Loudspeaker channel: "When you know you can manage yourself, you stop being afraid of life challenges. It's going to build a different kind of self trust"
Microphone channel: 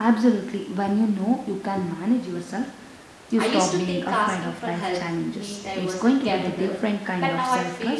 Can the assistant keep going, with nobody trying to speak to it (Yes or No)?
No